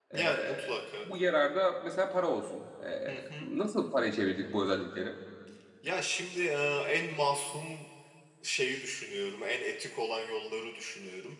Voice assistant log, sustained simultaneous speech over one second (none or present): none